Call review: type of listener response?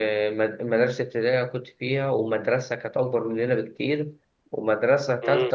listening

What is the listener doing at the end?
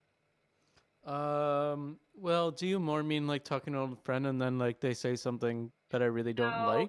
taking over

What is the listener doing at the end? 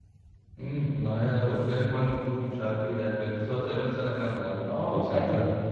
taking over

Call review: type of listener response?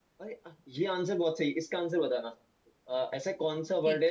listening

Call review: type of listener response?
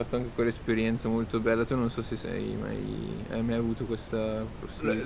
taking over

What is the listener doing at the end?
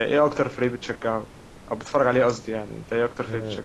taking over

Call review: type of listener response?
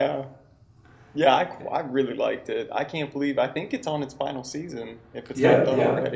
taking over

